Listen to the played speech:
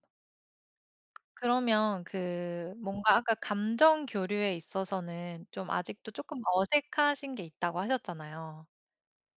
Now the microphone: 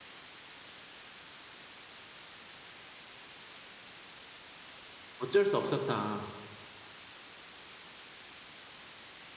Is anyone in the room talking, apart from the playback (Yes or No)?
Yes